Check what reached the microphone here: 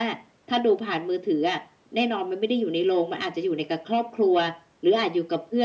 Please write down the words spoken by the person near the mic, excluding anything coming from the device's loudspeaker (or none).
none